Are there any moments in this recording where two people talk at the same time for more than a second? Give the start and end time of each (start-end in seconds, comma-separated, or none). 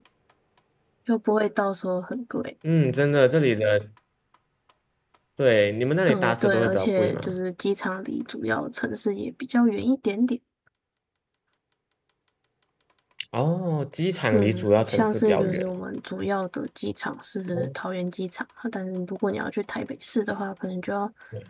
6.1-7.3, 14.3-15.7